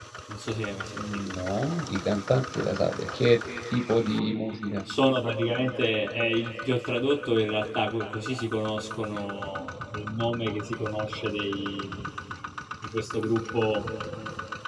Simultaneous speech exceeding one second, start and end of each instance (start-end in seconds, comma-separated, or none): none